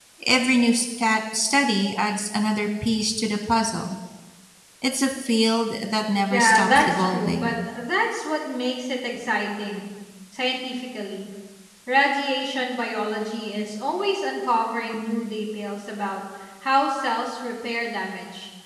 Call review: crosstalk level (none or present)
present